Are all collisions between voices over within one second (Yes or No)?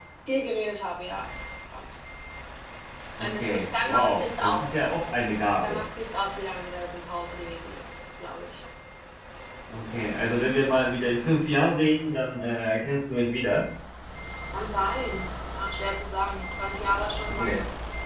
No